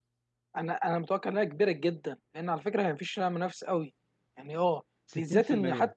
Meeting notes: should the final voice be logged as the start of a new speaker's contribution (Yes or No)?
No